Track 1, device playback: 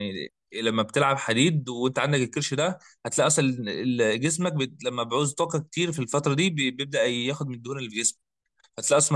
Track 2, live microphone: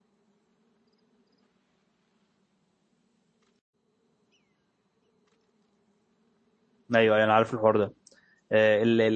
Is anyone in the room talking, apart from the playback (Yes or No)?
Yes